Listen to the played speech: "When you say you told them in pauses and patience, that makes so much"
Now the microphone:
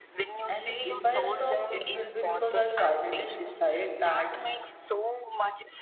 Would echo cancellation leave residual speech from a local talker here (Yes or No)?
Yes